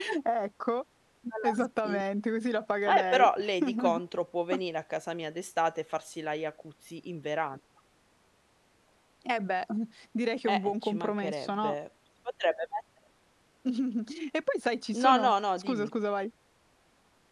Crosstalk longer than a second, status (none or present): present